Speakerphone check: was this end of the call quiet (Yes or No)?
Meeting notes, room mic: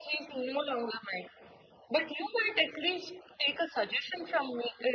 Yes